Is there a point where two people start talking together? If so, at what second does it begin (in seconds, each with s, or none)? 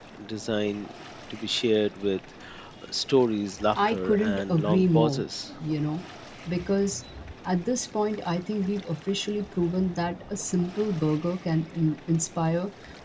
3.7 s